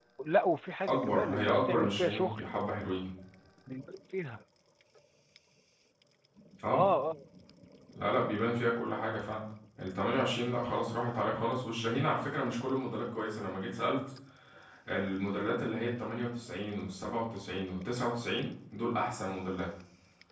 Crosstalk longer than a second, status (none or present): present